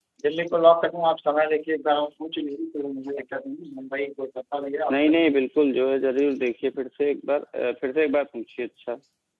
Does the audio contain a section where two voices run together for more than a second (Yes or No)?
No